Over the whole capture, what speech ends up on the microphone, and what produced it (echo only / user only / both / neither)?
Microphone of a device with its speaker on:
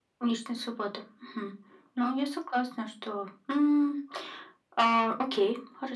echo only